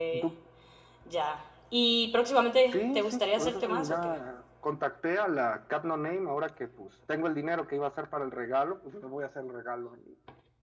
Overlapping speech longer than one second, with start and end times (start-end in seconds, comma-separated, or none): 2.7-4.2